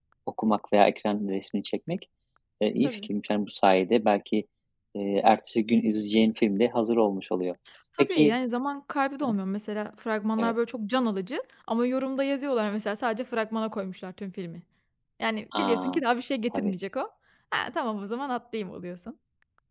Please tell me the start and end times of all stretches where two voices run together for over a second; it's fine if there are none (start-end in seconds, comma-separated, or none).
none